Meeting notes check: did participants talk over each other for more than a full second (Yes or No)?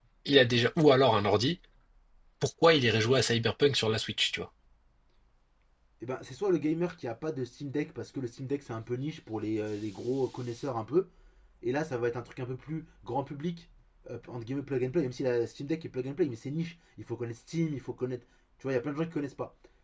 No